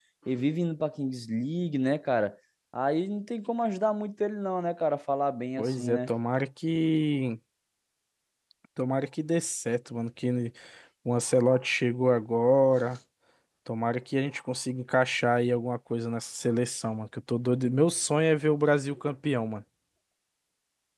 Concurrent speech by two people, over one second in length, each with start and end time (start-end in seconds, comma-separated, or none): none